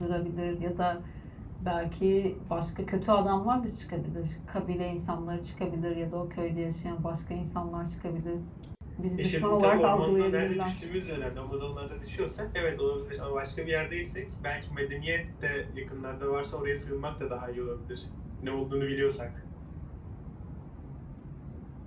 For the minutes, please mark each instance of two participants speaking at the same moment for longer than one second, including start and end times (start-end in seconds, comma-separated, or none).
9.2-10.7